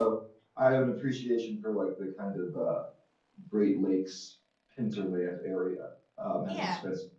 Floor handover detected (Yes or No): No